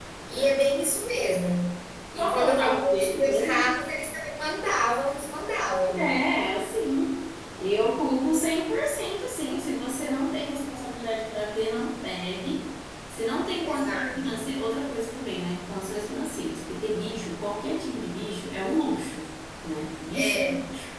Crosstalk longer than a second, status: present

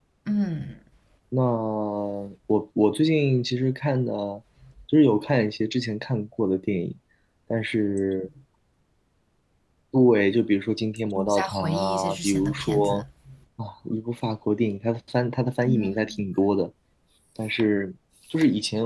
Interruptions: present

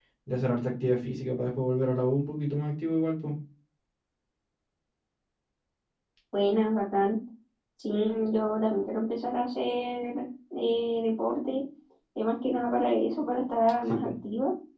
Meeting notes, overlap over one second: none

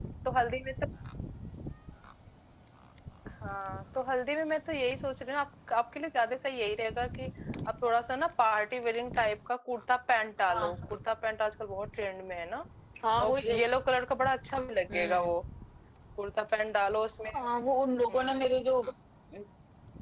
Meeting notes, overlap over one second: none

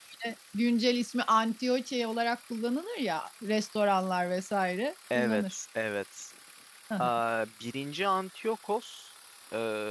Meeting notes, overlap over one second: none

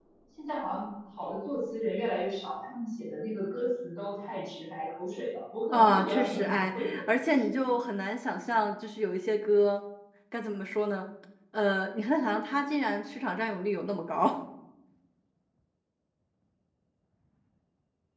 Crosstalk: present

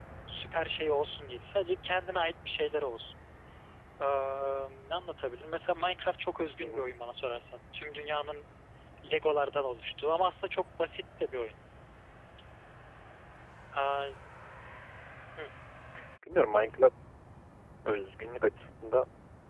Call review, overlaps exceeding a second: none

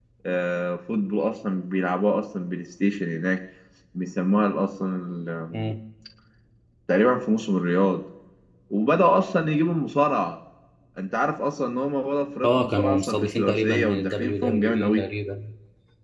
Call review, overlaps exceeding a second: present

